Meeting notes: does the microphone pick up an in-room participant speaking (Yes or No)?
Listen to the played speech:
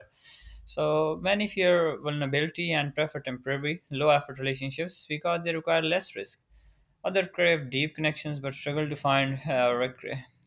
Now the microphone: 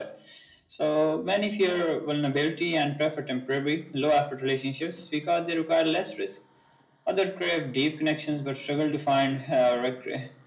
No